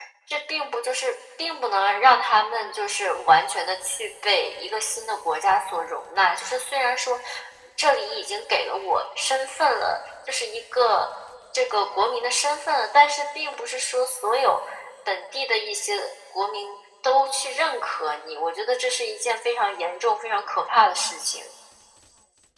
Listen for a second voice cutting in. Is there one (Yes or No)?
No